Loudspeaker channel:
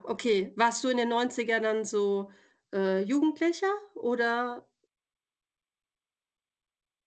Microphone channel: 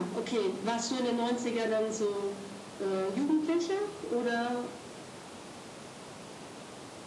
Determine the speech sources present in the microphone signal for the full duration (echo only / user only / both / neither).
echo only